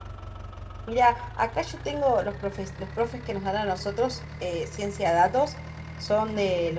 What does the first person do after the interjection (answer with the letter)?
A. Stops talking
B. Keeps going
B